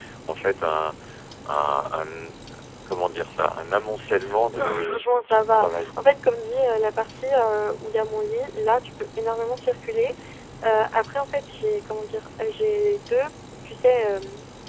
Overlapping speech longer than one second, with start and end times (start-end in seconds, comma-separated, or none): 4.5-6.0